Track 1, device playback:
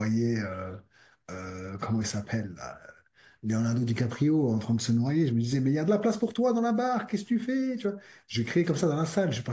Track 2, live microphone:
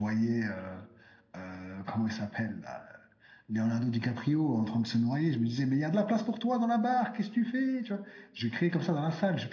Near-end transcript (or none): none